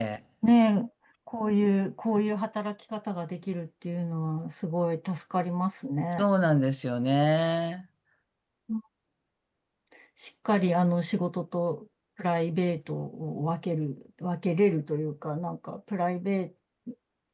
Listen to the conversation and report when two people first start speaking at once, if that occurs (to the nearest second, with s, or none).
none